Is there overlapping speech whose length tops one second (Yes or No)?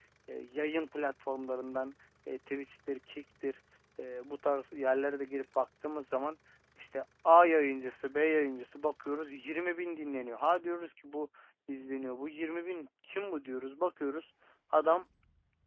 No